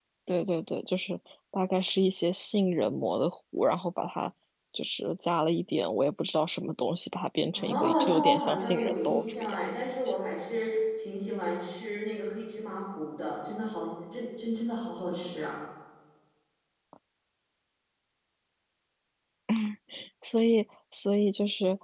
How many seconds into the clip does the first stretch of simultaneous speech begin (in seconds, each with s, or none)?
7.5 s